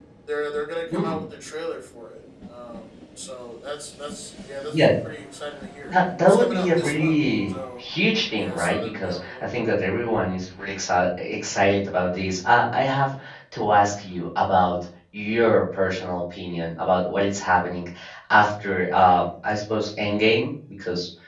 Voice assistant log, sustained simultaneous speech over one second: present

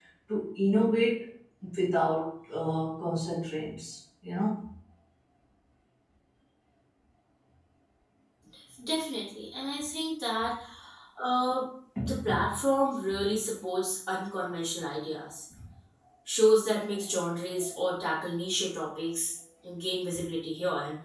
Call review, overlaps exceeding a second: none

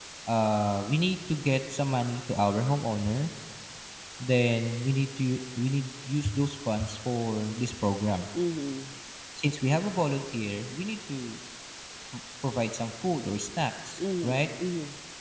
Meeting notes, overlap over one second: none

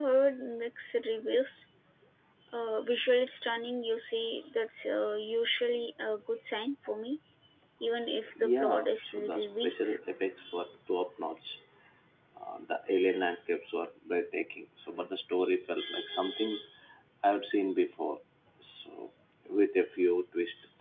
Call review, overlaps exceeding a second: present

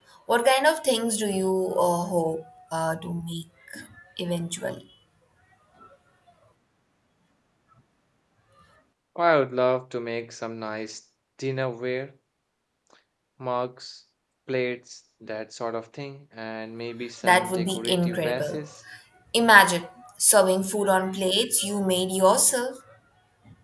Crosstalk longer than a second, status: present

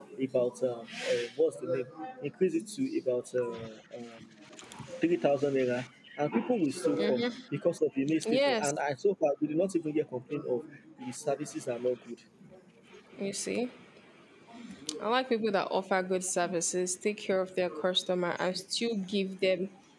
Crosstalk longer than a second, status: none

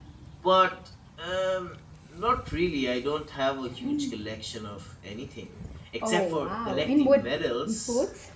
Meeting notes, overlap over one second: present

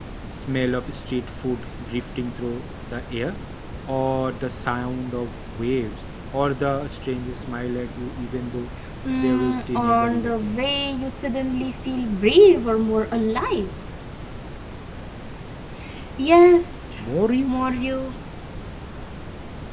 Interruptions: present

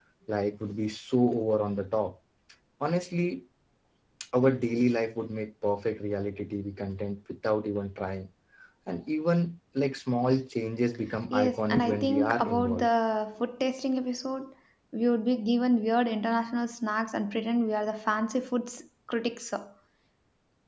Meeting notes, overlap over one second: present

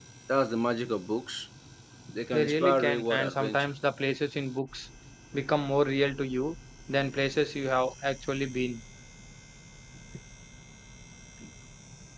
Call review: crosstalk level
present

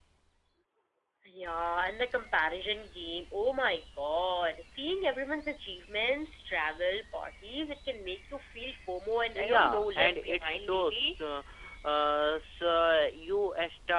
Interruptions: present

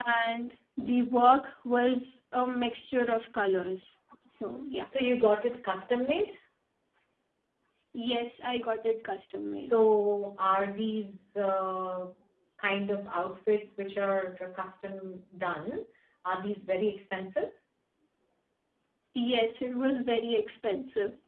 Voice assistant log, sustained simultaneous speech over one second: none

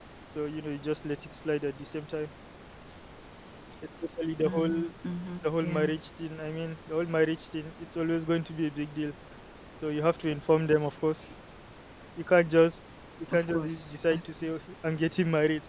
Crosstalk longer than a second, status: present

